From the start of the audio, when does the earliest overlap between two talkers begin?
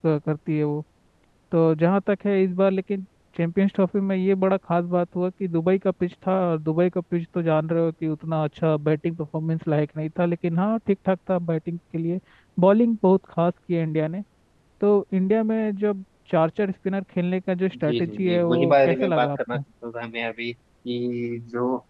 18 s

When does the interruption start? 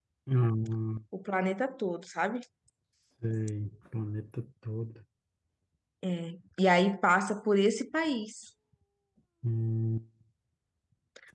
none

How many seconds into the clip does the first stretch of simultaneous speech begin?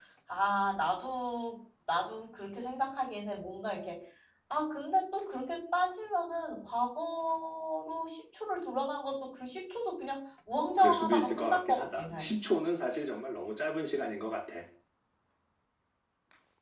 11 s

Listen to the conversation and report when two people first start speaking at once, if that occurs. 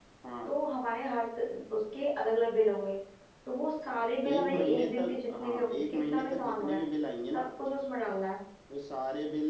4 s

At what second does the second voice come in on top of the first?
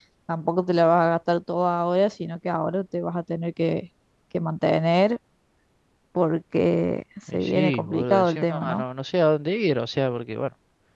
7 s

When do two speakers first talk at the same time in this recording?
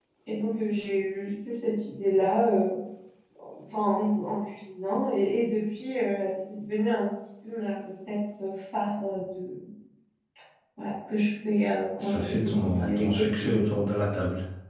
12 s

